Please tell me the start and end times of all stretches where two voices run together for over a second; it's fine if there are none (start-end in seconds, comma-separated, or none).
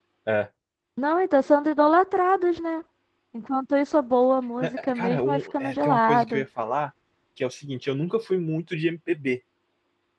4.6-6.4